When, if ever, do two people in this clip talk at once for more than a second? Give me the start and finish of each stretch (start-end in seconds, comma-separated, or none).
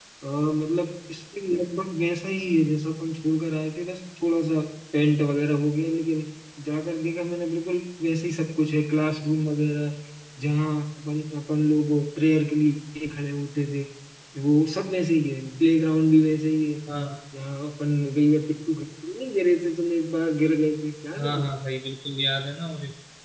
none